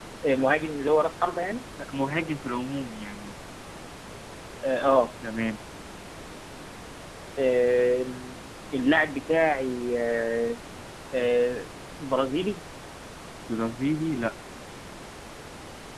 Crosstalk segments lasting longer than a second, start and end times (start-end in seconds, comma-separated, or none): none